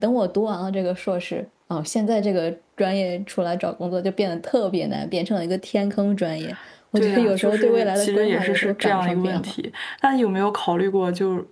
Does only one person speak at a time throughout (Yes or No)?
No